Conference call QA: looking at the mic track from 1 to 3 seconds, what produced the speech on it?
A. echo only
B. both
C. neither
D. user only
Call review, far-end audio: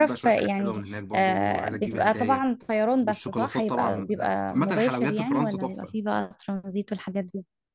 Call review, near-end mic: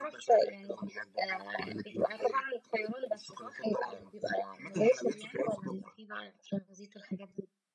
A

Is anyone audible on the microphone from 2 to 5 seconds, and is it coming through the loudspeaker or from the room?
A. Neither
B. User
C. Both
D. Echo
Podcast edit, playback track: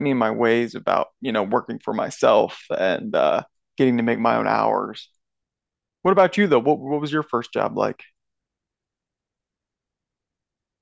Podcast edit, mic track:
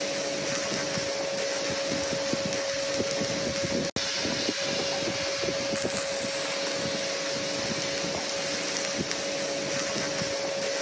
A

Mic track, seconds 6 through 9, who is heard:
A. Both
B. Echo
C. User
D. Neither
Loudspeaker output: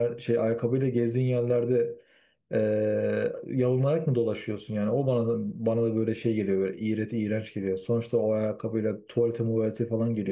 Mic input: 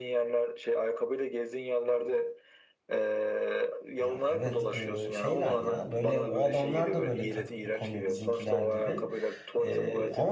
A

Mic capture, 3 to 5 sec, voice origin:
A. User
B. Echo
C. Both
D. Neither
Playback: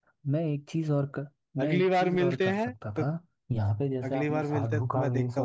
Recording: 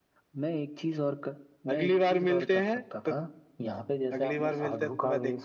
B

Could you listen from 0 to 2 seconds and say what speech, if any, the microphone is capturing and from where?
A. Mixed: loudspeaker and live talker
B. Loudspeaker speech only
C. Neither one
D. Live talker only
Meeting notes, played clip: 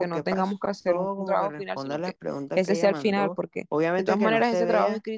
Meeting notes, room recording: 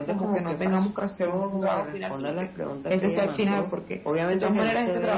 B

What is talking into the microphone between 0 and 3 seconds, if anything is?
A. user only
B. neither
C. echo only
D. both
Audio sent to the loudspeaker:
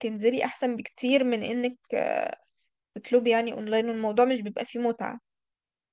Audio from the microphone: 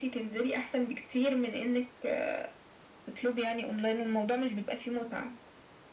C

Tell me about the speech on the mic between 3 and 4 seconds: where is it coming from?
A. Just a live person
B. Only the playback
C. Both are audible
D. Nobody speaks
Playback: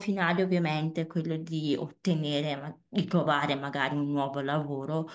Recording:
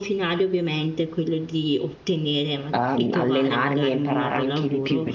C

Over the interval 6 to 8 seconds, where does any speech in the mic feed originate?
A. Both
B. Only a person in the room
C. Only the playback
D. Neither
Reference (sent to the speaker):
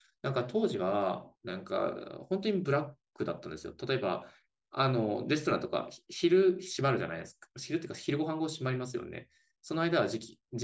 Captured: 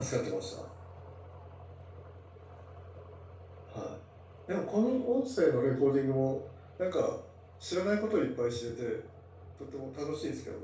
B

